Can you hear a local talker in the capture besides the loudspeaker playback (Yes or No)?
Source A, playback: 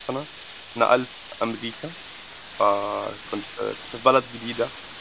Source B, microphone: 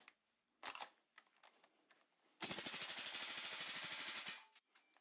No